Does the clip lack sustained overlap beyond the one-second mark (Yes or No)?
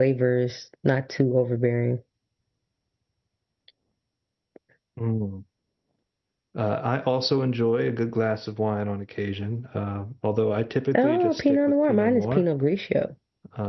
No